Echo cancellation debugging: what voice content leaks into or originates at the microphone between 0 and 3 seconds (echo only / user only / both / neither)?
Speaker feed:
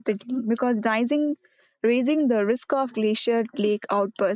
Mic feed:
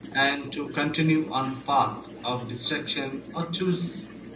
user only